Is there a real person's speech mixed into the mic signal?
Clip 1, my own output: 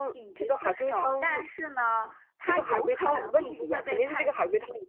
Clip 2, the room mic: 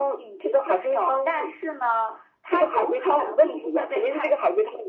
No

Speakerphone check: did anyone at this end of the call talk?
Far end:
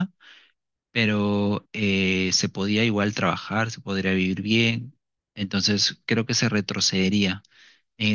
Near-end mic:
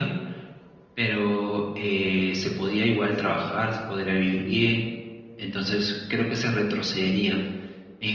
No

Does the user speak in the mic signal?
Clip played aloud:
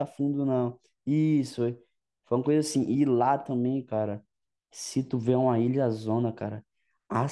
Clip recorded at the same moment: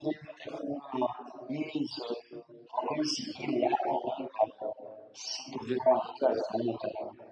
No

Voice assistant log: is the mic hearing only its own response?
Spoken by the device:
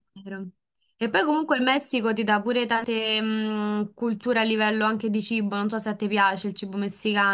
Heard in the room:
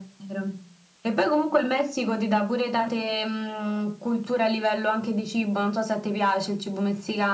Yes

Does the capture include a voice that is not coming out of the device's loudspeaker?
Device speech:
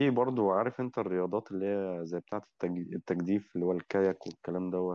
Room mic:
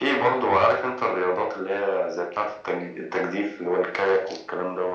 No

